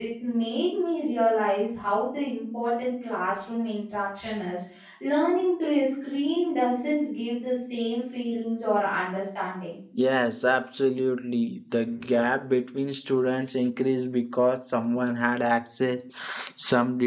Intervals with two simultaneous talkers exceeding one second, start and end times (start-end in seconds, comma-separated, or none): none